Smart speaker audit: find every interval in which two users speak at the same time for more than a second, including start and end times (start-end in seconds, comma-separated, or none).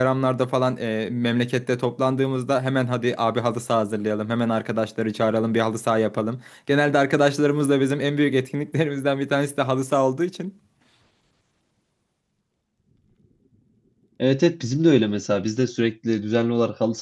none